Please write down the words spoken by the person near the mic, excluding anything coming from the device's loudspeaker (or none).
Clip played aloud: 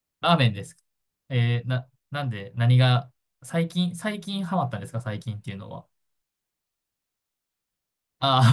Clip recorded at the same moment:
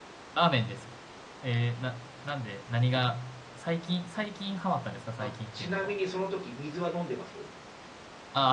あ。あ、ちなみにその時水は飲んでます